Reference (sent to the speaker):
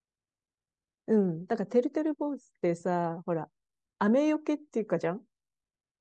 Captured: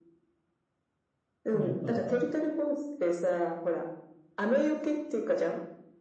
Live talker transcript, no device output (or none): それやったことある。